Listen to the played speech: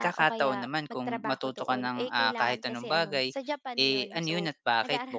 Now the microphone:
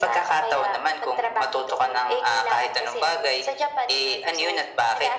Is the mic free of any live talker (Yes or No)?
Yes